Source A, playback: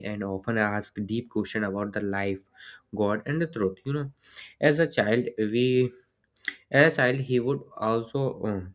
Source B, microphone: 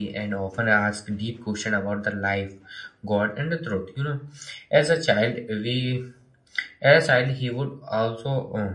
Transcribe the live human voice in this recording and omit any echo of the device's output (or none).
none